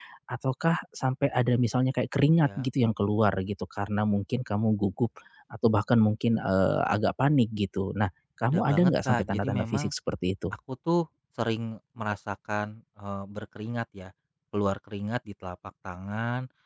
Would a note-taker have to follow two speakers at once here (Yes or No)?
Yes